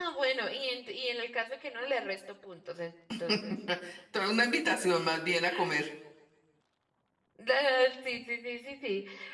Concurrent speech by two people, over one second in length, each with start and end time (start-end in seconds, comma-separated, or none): none